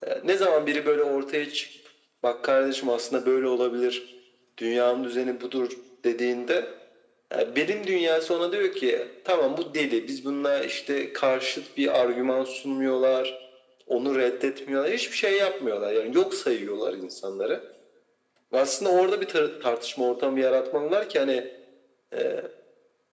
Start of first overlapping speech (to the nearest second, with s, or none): none